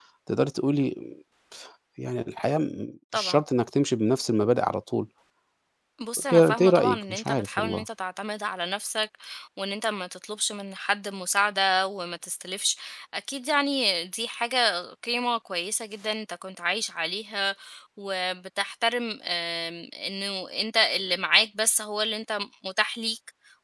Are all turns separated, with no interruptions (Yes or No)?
No